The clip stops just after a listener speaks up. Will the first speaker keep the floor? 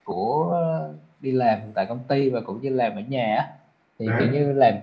Yes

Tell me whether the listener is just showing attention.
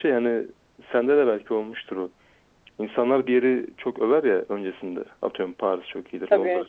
Yes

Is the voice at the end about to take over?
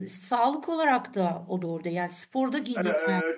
No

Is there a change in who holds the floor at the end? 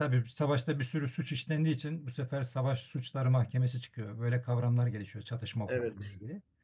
No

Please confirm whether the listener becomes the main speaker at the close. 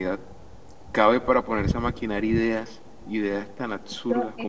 Yes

